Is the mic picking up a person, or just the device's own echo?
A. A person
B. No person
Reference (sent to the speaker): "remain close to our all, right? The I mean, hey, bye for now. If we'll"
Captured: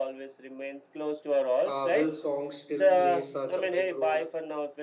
A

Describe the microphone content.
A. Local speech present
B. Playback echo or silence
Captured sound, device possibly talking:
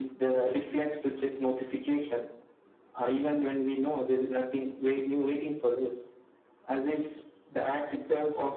B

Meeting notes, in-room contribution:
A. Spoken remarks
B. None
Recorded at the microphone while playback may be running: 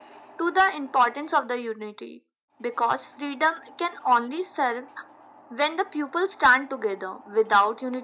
B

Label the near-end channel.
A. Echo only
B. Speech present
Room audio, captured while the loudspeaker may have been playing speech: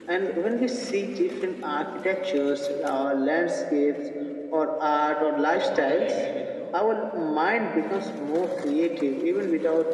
B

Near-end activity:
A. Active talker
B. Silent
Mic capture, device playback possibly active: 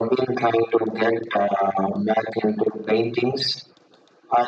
B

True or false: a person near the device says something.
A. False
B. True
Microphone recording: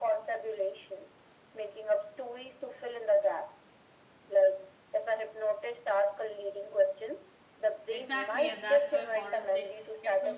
B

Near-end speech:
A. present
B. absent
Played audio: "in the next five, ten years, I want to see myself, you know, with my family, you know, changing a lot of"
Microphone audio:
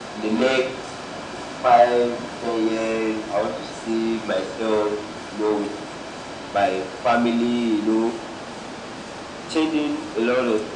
B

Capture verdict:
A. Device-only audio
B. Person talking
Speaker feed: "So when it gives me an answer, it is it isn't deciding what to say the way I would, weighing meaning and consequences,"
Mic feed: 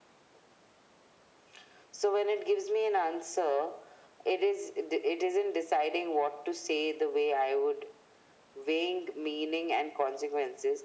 A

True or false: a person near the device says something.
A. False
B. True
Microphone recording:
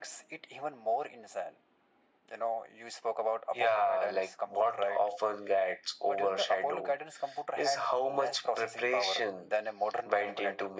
A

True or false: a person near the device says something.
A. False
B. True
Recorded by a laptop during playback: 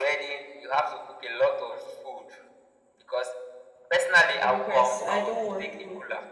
B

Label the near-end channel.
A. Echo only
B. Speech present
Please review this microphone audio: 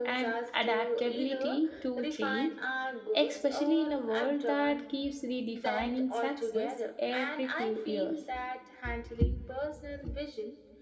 B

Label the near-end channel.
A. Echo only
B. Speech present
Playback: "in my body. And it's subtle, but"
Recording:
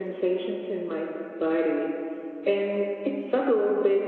A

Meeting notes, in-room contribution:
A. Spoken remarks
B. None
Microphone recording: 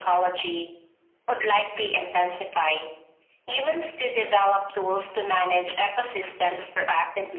B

